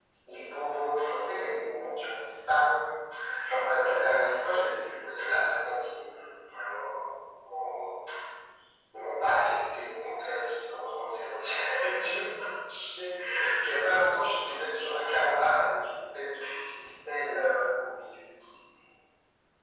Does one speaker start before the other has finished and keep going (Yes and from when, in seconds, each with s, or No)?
No